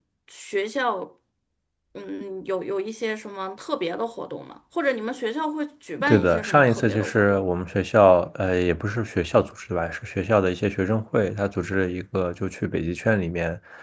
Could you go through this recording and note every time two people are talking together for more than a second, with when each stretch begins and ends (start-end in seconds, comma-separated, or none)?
6.0-7.4